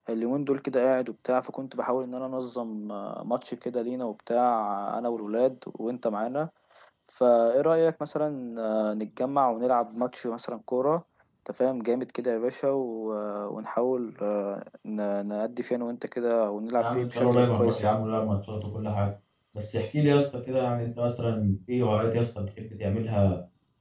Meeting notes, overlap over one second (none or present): present